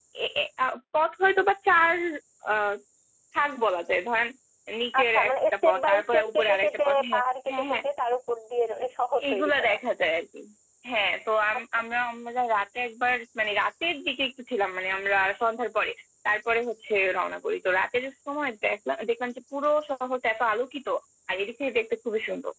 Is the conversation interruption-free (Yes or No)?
No